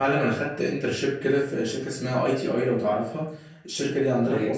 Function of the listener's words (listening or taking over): listening